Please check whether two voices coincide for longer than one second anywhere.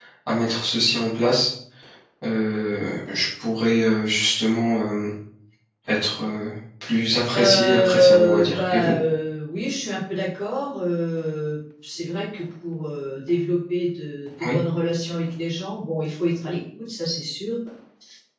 Yes, from 7.3 s

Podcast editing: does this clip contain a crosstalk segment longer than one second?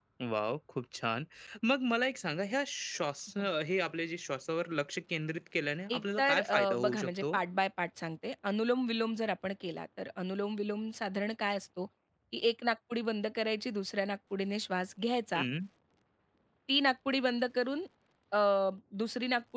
Yes, from 5.9 s

